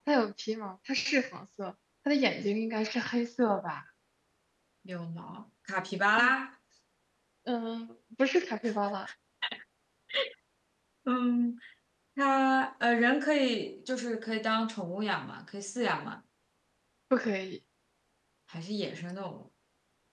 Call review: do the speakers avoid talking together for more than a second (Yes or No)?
Yes